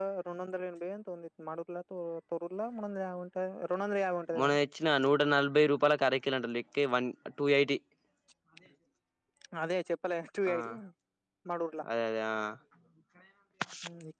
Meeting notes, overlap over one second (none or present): none